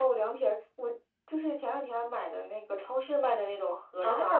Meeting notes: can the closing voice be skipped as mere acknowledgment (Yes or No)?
No